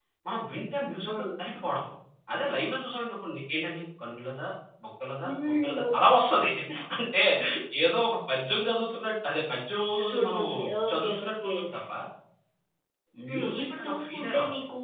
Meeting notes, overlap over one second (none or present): present